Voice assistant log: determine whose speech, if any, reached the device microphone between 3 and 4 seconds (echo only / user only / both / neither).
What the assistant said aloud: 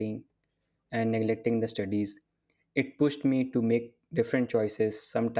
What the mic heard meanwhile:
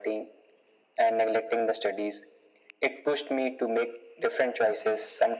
echo only